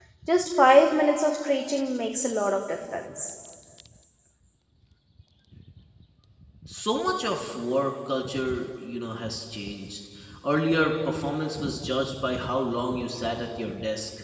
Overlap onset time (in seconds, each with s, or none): none